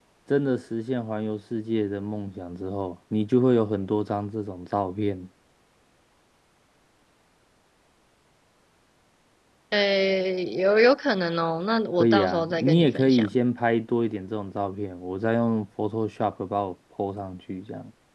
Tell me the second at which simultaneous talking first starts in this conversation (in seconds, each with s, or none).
12.0 s